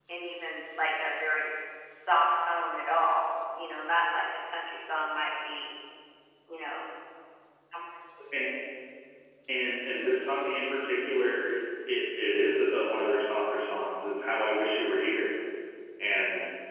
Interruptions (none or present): none